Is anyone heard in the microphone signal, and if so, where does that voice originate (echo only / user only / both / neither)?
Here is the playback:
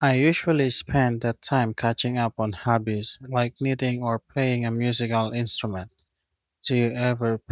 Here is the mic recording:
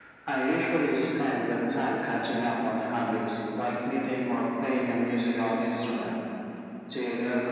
echo only